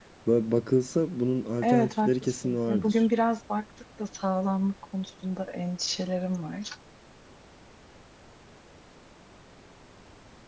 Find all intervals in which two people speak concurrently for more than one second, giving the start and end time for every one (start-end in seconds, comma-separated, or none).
1.6-3.1